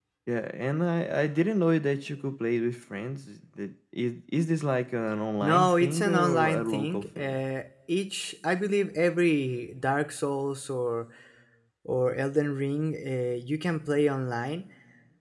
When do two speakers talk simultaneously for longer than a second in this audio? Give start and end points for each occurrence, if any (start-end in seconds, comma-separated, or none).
5.4-7.4